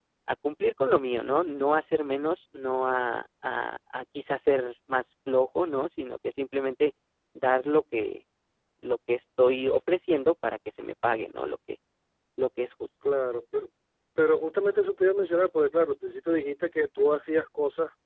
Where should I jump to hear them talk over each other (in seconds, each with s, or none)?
none